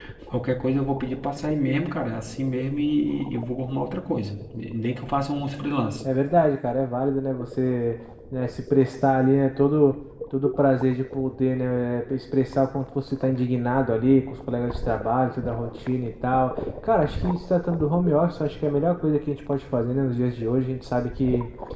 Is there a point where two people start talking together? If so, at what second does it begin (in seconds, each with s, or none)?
none